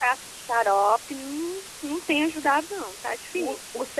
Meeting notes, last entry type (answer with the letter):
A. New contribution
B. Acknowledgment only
A